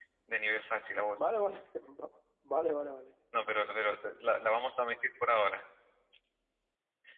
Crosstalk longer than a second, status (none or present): none